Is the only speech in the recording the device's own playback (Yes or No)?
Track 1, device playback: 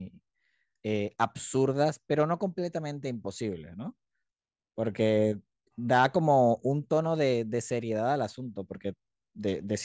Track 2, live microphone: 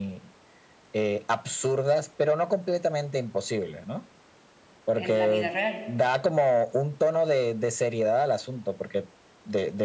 No